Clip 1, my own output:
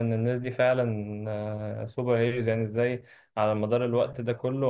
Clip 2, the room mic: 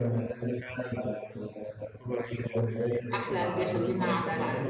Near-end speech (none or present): present